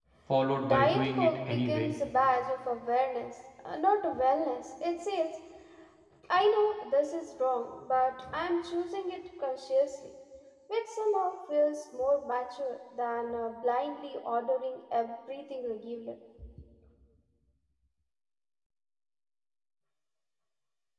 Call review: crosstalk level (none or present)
present